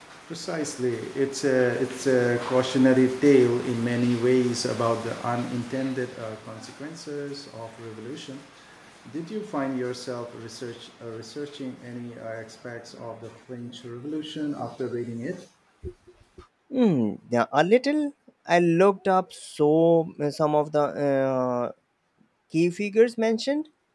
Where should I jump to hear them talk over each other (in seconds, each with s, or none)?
none